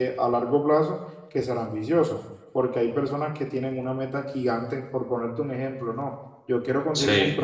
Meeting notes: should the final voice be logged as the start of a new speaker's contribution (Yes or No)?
No